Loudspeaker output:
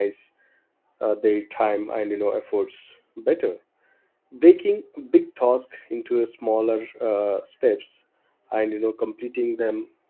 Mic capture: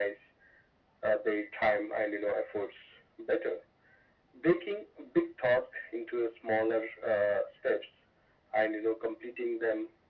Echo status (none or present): present